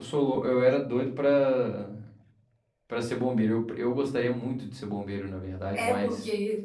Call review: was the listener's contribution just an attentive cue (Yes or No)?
No